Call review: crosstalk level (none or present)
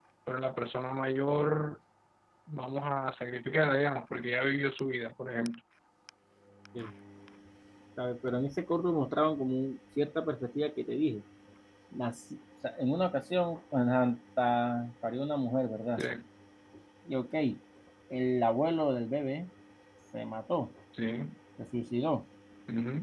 none